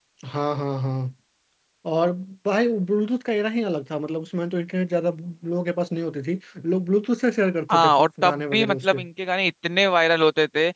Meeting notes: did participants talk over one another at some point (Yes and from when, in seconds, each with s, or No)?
Yes, from 7.7 s